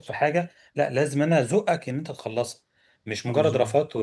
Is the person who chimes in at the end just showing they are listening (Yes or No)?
Yes